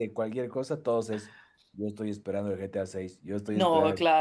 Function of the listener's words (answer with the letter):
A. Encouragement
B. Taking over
B